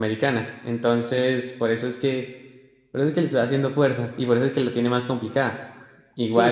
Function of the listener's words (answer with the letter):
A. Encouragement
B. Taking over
B